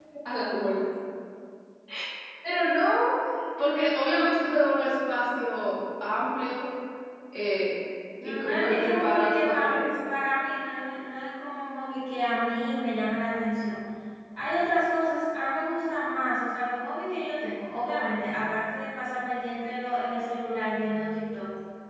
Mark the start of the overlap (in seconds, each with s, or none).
8.2 s